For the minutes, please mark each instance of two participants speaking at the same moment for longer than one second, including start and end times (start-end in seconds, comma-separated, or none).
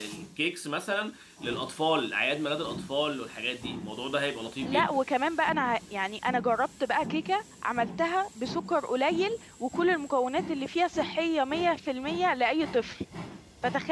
none